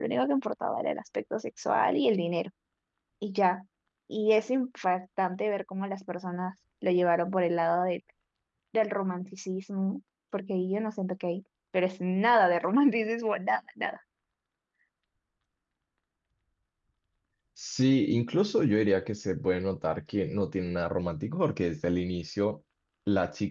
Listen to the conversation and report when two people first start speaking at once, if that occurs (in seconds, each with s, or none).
none